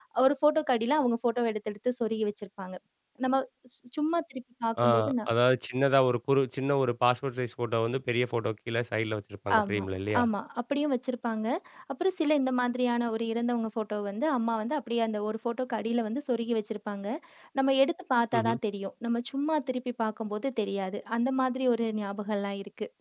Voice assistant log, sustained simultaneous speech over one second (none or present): none